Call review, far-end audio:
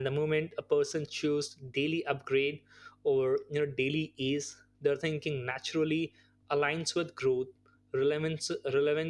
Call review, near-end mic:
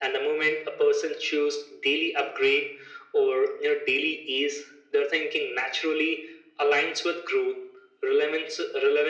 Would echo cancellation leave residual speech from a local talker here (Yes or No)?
No